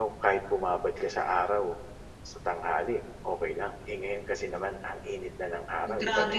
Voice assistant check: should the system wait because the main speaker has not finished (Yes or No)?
No